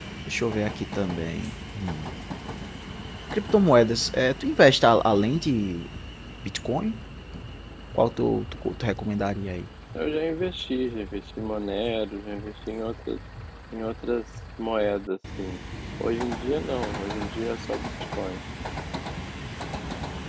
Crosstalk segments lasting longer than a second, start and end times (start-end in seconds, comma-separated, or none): none